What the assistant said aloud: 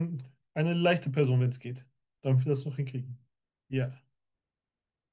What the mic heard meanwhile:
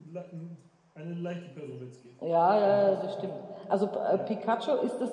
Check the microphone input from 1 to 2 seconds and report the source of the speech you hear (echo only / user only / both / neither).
echo only